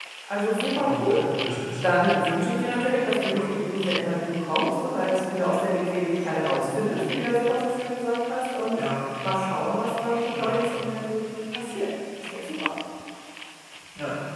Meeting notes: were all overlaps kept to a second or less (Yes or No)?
Yes